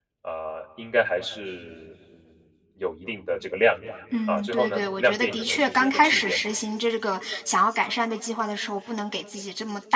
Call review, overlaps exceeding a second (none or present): present